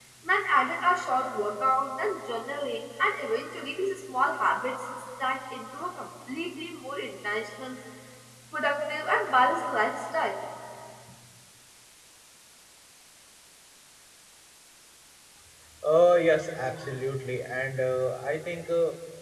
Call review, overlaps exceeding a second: none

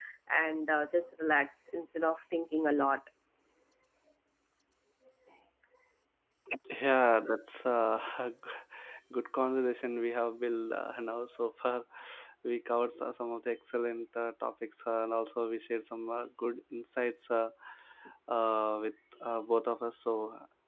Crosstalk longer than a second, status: none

